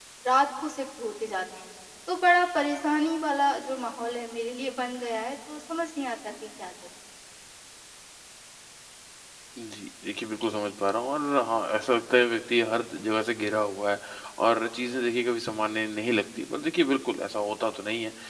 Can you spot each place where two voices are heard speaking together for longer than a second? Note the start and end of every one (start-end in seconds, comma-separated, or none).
none